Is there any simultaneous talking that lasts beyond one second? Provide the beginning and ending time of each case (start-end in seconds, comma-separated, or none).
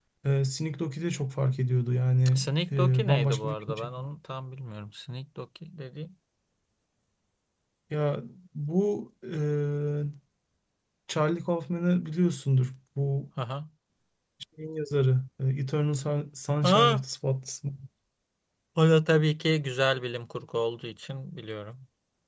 2.3-4.0